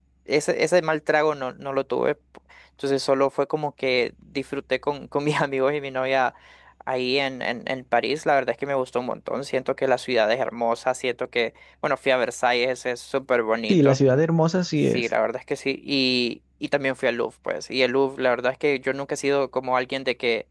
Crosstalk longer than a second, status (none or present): none